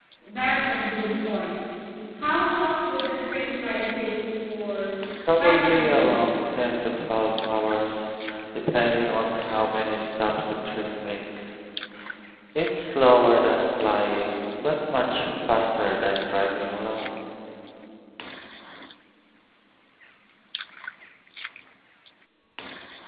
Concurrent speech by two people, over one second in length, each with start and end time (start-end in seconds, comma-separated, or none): 5.4-6.6